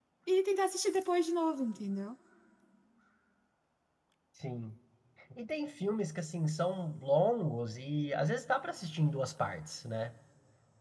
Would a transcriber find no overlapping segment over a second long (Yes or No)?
Yes